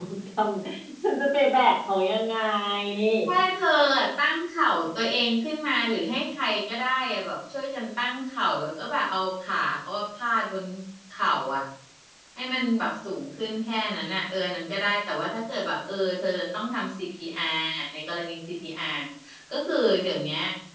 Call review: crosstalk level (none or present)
none